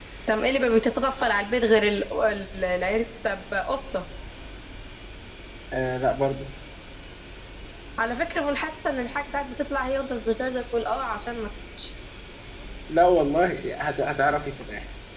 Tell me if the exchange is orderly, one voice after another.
Yes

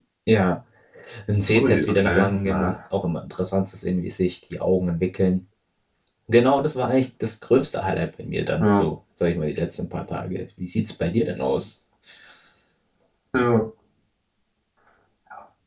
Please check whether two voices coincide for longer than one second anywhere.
Yes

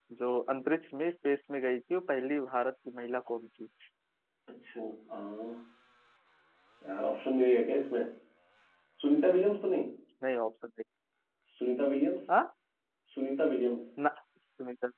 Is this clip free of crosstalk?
Yes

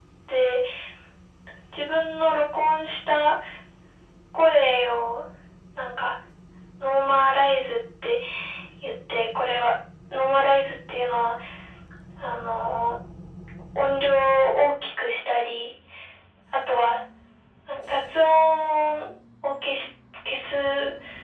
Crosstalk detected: No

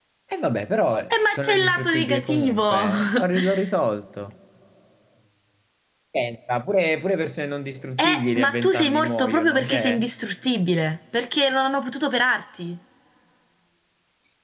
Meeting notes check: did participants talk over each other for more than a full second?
Yes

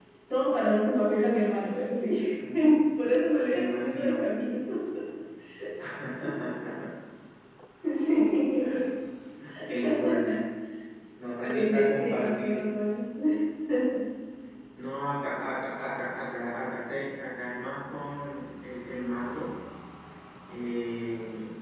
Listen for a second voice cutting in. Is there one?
Yes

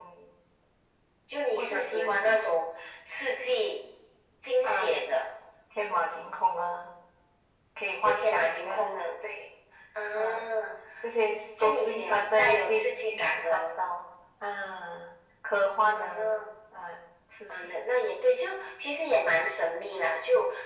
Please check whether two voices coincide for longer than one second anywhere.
Yes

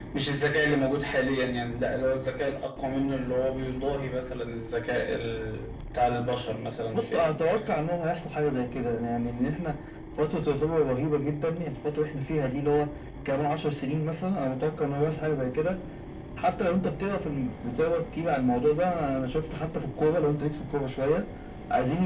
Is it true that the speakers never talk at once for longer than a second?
Yes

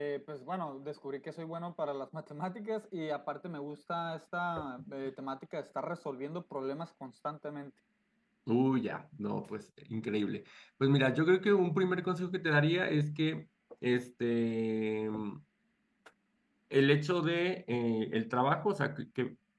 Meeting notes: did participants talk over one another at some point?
No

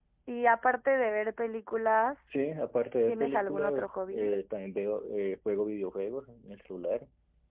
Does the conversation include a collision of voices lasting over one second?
Yes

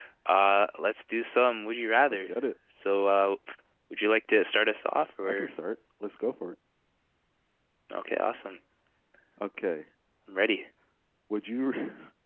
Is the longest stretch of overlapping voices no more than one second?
Yes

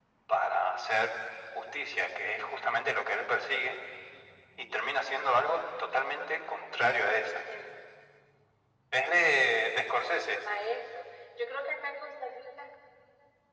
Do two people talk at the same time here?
No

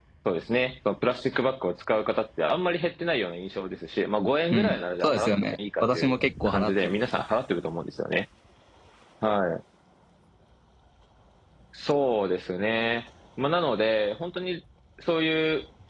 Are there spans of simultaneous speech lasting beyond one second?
Yes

